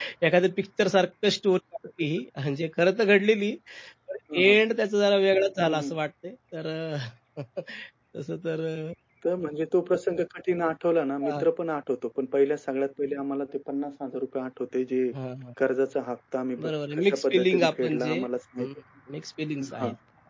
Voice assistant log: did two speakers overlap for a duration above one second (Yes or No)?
Yes